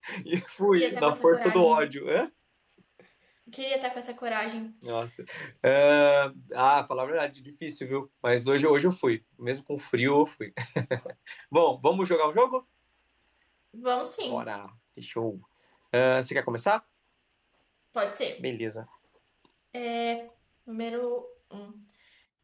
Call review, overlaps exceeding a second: present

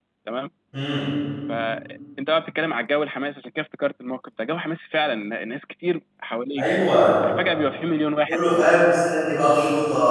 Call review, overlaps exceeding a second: none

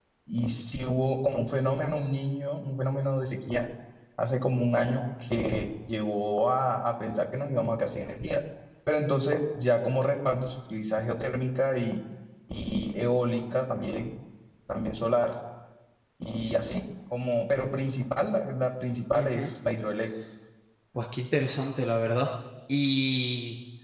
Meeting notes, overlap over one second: none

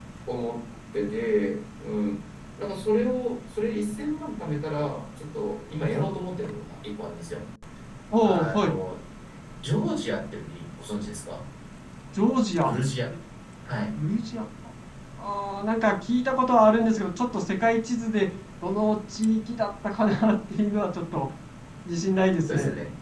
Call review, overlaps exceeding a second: none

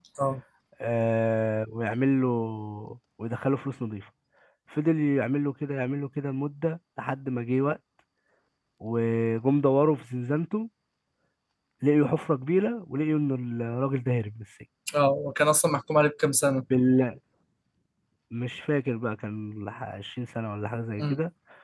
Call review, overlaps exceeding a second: none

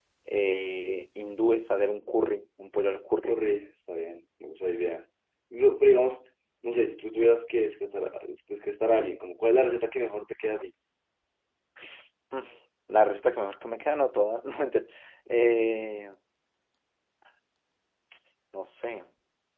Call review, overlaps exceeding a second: none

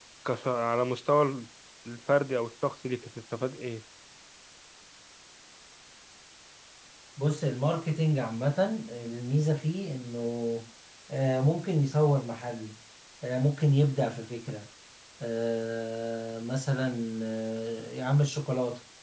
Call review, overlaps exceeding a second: none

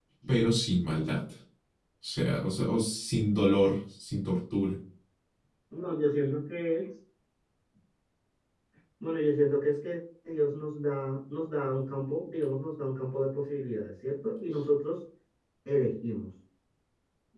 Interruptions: none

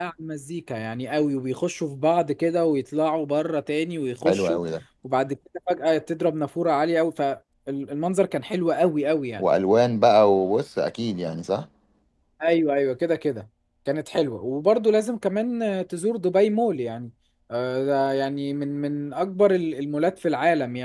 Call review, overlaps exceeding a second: none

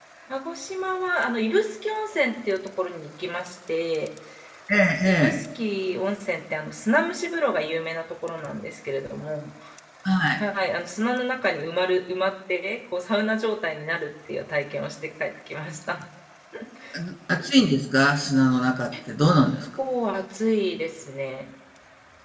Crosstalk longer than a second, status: none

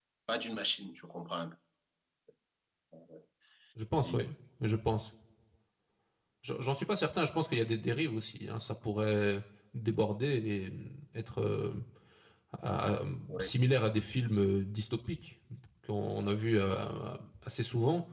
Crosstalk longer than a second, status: none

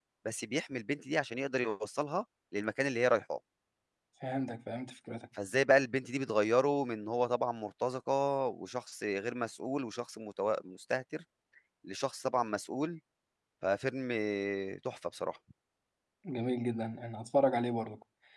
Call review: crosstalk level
none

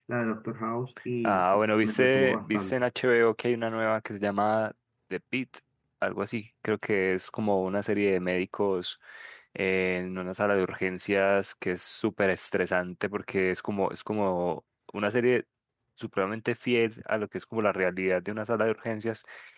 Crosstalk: present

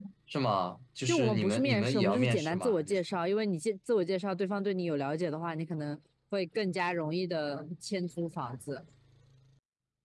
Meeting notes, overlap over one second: present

